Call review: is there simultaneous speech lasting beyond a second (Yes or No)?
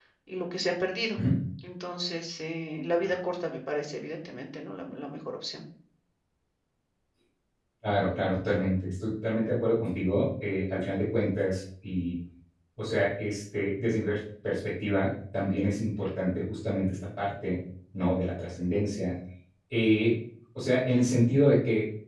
No